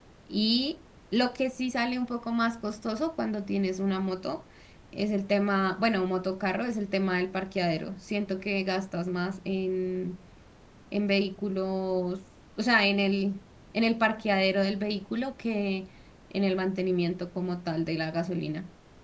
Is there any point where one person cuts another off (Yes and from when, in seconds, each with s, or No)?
No